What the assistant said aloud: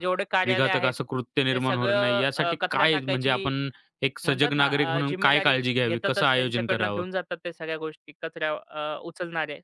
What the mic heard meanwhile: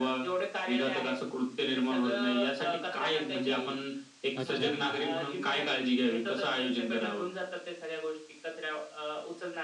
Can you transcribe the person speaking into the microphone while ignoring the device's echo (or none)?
अच्छा, अच्छा.